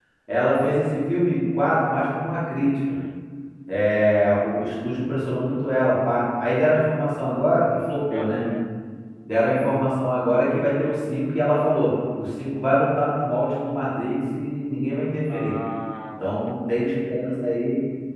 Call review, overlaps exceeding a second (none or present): none